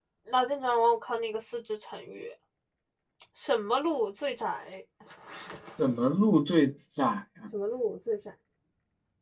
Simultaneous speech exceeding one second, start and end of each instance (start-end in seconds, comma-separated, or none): none